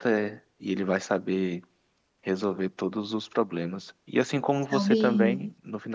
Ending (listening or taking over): listening